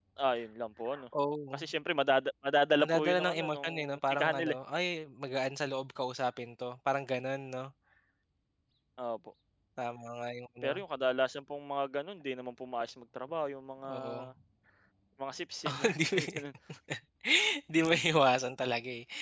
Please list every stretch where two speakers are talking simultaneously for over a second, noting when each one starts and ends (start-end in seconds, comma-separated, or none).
2.8-4.5